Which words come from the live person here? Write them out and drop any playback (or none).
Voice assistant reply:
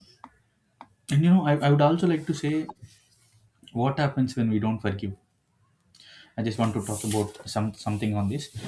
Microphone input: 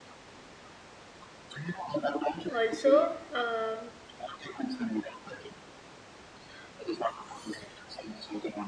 Also, um,